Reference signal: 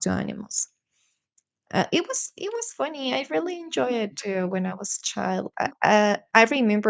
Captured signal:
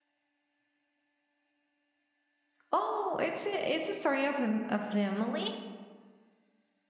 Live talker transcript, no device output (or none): Oh, it's a it's a story of a, a family,